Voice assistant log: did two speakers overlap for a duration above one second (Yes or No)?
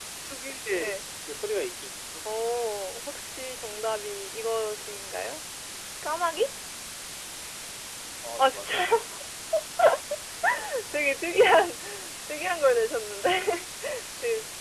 No